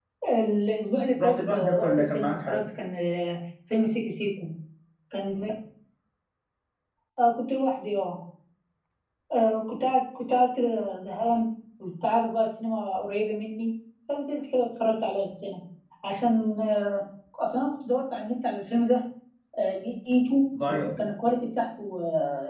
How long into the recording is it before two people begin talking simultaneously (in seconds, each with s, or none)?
1.2 s